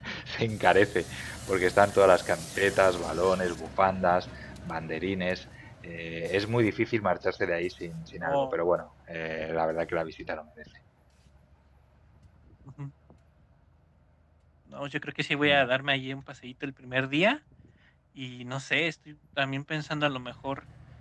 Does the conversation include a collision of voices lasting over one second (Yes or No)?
No